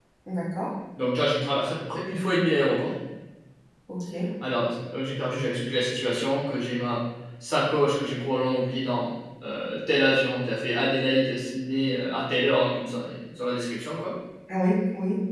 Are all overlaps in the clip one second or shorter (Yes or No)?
Yes